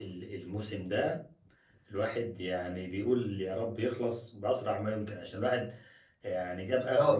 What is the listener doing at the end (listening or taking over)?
listening